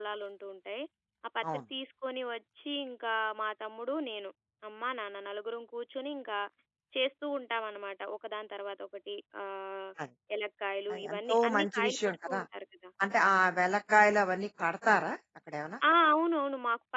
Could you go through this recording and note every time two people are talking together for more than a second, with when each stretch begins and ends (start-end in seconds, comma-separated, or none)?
10.9-12.4